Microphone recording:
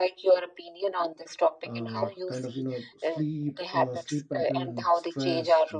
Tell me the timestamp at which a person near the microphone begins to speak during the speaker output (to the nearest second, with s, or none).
2 s